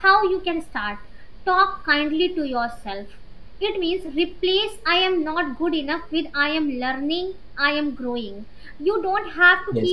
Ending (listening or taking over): listening